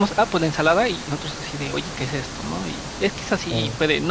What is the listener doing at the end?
listening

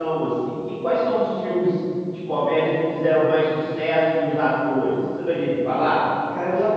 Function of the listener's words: taking over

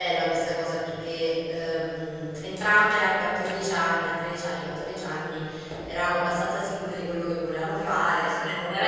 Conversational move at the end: listening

